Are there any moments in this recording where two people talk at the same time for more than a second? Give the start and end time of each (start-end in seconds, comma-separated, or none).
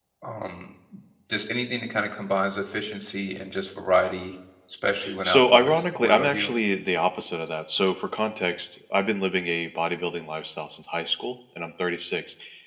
5.2-6.5